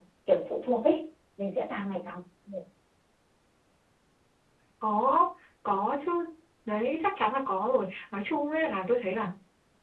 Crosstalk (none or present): none